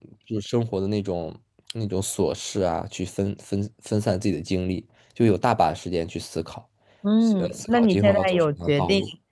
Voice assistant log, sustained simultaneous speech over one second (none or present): present